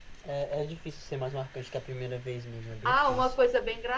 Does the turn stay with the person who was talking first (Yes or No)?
No